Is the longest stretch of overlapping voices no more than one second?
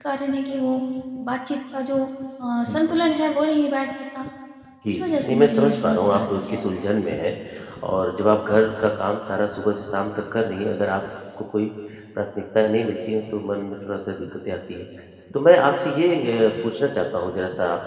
No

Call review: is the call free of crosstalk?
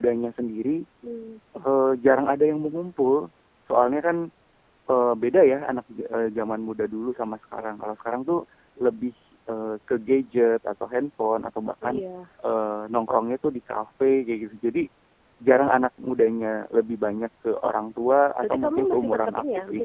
No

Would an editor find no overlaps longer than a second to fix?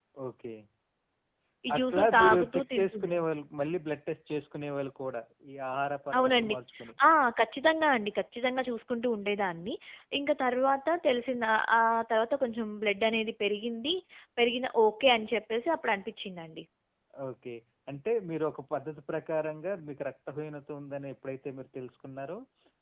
No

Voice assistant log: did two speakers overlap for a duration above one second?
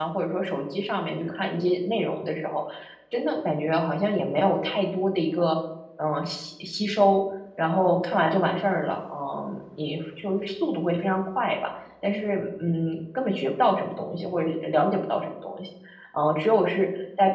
No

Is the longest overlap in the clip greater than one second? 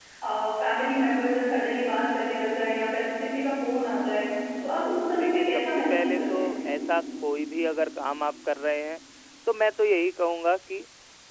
Yes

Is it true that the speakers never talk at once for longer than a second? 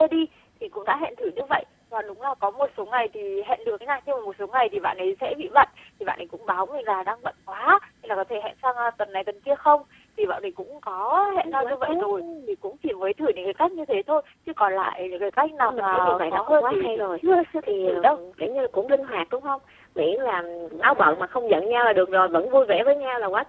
No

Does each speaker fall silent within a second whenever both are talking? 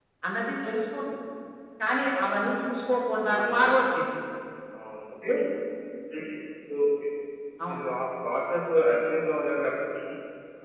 Yes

